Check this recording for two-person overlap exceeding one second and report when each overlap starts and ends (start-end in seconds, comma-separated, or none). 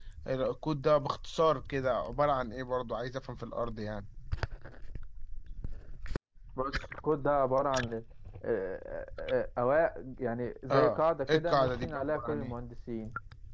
10.7-12.6